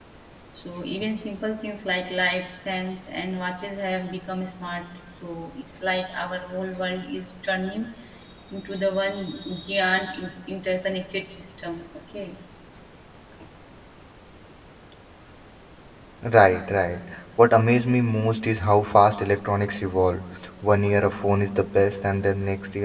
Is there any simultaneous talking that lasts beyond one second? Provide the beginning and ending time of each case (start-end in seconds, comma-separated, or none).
none